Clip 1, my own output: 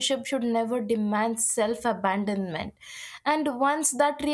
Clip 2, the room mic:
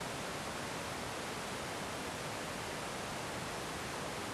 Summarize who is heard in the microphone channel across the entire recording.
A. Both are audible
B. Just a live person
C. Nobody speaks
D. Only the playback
C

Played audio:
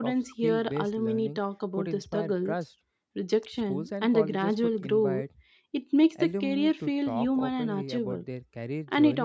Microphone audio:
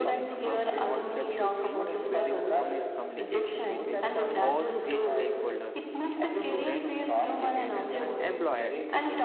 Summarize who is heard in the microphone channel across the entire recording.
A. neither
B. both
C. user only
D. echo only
B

